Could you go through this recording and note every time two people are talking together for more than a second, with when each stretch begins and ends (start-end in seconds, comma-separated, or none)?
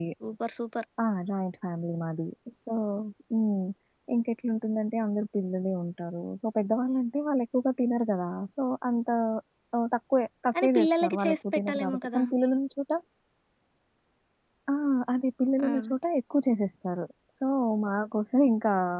10.6-12.2